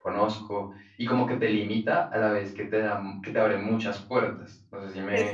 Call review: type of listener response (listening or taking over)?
taking over